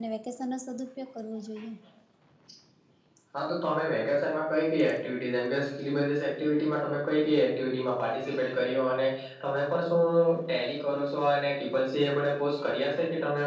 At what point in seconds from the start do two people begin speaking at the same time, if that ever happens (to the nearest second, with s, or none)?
none